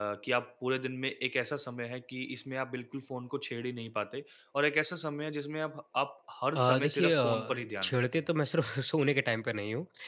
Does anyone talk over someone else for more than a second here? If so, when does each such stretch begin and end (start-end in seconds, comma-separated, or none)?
6.6-8.2